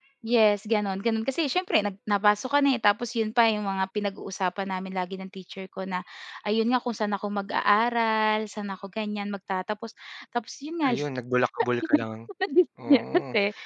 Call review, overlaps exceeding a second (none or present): none